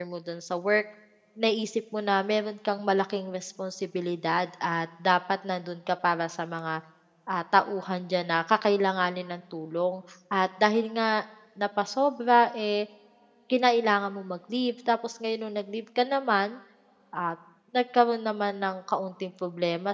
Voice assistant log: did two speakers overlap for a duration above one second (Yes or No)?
No